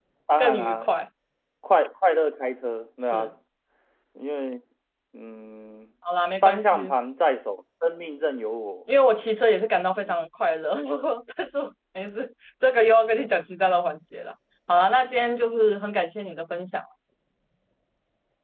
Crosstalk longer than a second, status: none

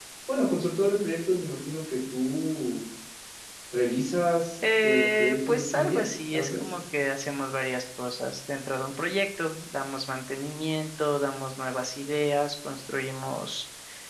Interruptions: present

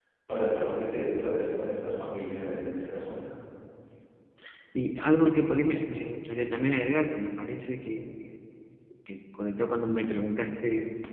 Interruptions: none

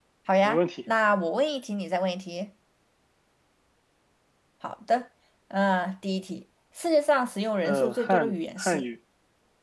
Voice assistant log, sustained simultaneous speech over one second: present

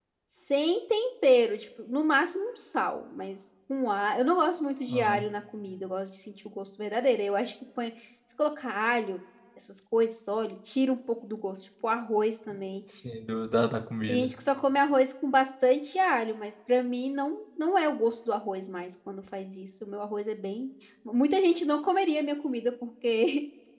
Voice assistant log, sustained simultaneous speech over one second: none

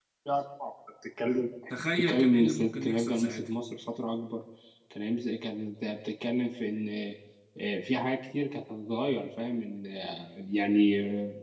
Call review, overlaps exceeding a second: present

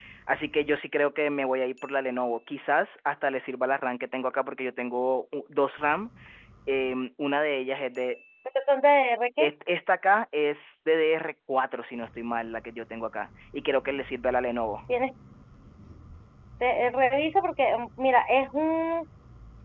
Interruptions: none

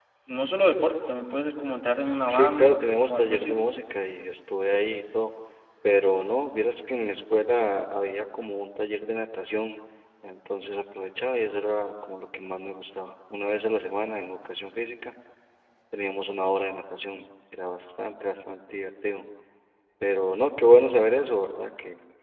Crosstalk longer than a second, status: present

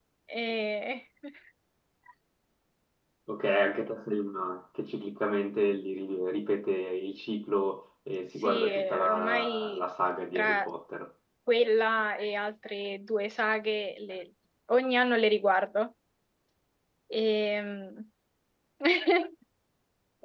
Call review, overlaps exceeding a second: present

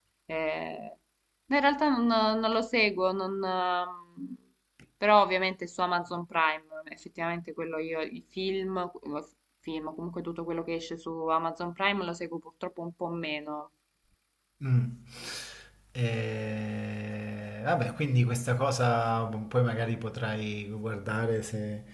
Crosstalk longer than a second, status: none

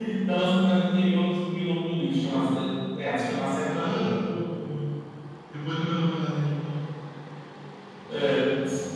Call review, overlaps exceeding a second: none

